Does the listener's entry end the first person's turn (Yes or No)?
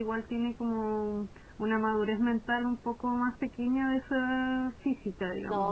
Yes